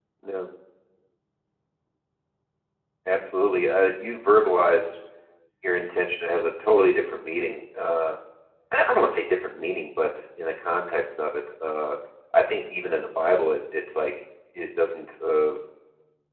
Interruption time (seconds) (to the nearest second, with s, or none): none